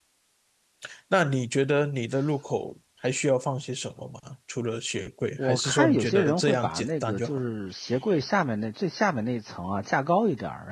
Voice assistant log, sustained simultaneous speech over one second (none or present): present